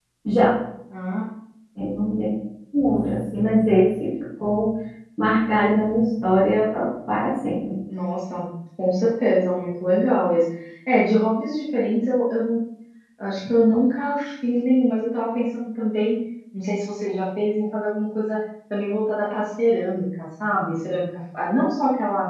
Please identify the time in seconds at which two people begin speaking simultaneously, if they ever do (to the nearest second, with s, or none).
none